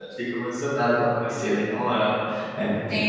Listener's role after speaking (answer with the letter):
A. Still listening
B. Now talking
B